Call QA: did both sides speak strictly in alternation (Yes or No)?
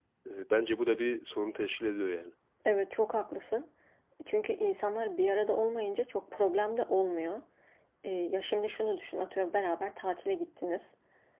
Yes